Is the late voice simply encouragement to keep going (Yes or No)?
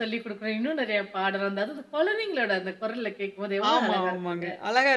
No